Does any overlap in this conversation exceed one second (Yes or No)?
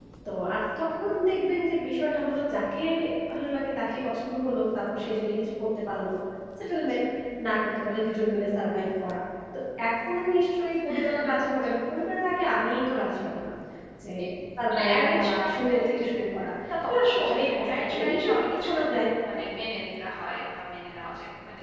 Yes